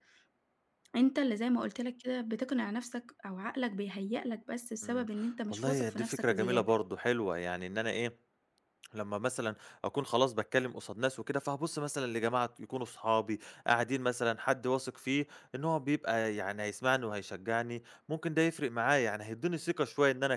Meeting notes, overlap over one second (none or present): present